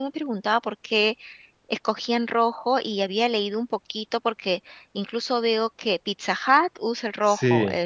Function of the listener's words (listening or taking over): listening